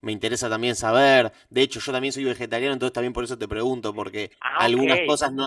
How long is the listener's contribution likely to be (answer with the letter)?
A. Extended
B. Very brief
B